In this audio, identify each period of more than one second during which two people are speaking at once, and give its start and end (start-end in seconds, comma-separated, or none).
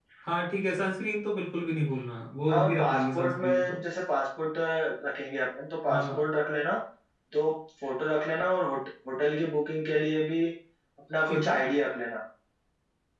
2.5-3.8